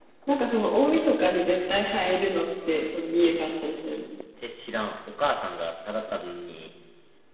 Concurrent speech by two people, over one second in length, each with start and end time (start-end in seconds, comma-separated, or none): none